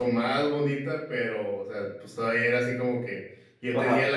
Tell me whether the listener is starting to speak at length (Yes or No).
No